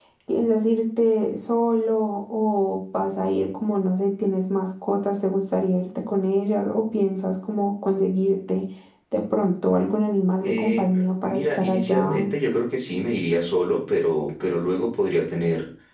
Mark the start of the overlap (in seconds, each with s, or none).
10.4 s